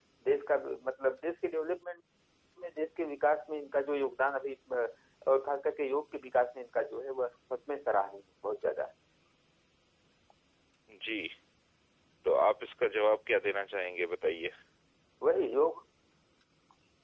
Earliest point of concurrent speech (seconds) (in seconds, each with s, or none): none